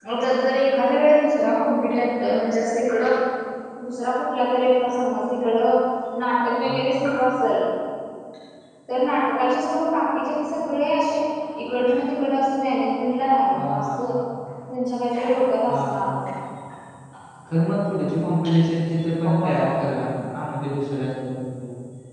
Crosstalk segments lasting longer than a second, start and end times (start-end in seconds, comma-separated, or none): none